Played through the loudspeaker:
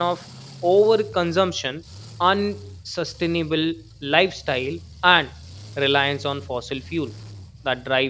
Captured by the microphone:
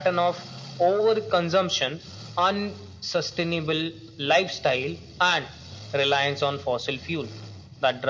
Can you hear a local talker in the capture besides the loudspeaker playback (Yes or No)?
No